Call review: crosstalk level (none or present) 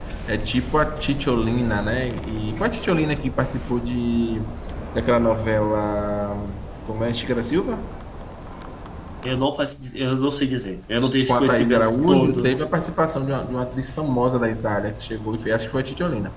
present